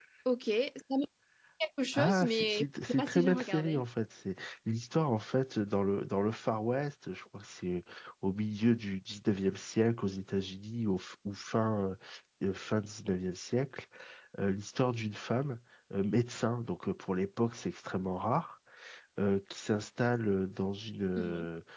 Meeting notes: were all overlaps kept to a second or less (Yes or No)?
No